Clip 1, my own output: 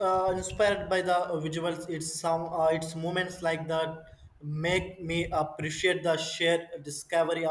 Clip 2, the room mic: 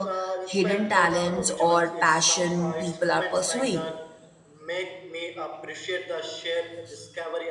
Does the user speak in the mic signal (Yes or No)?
Yes